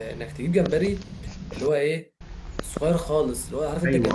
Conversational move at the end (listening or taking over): taking over